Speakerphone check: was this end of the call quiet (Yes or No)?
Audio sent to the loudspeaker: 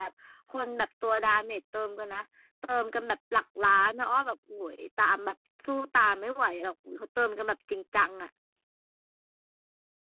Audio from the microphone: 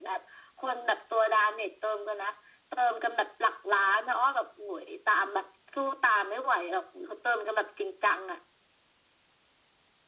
Yes